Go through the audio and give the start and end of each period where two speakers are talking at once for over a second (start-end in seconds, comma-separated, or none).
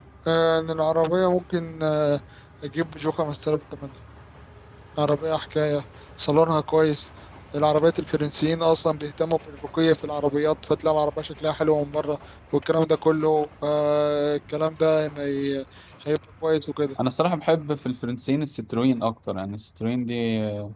none